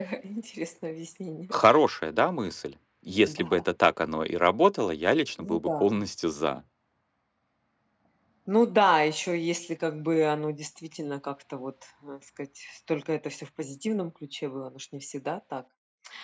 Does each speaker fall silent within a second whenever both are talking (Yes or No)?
Yes